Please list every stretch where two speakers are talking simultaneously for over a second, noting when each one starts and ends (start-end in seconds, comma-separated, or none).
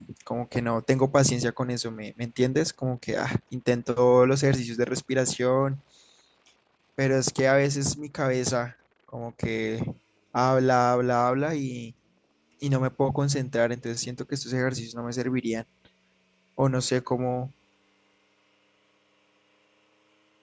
none